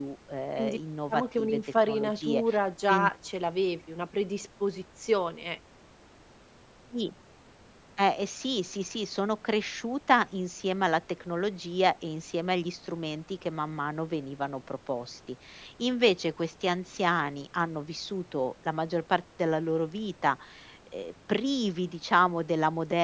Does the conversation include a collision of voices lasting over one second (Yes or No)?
Yes